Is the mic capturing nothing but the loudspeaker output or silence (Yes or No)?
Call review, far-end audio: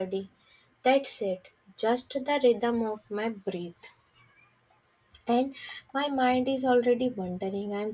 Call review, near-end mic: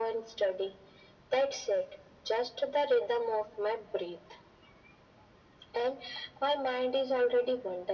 Yes